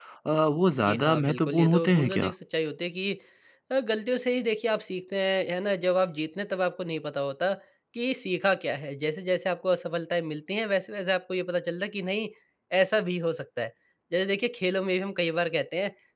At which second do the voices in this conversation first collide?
0.7 s

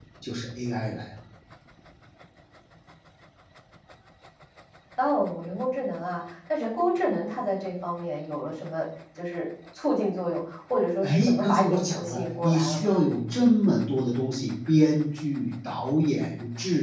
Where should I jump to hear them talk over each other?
11.0 s

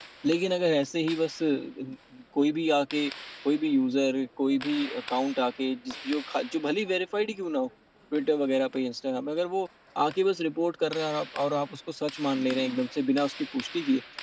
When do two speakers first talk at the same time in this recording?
none

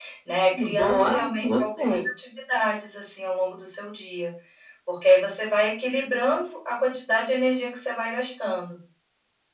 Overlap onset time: 0.6 s

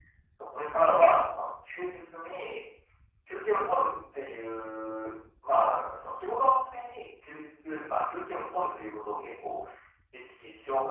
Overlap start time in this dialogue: none

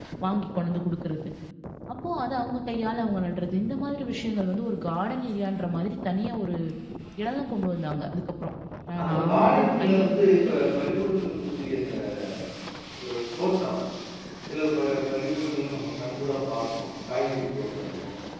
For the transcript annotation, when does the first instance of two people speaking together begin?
9.0 s

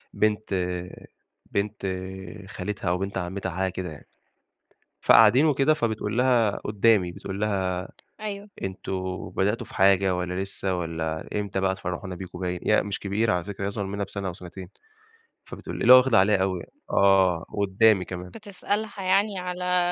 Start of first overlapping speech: none

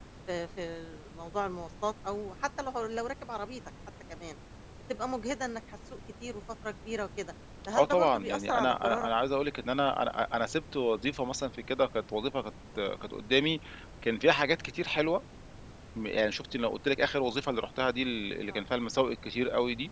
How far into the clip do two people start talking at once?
7.7 s

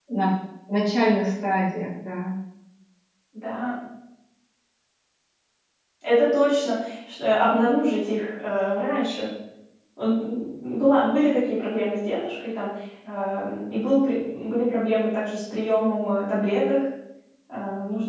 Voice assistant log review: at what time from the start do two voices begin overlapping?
none

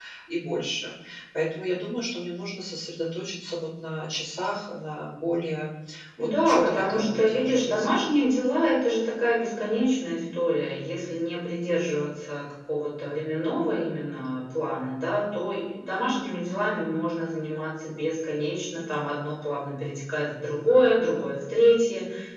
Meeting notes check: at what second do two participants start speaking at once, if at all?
6.2 s

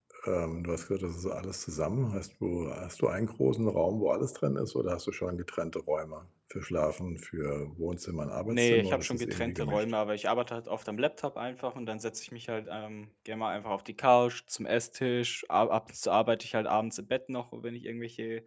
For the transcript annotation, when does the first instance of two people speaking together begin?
8.5 s

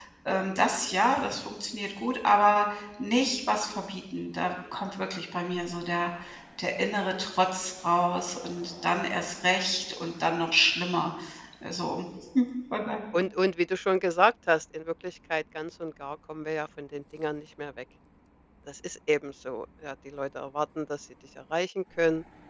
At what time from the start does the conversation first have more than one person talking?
none

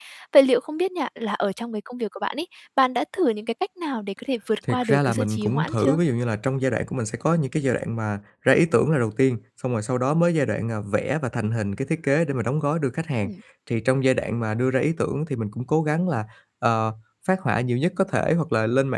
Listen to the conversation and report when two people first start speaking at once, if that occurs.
4.6 s

